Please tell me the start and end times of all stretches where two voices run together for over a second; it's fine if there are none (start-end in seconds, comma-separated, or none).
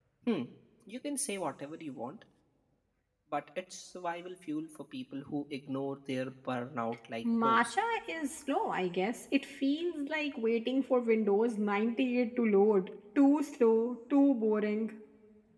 none